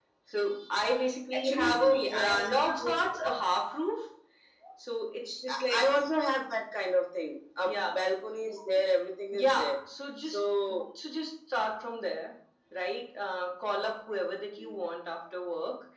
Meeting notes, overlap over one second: present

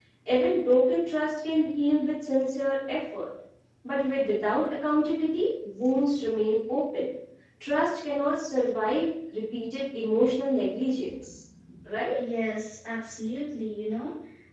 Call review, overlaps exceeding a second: none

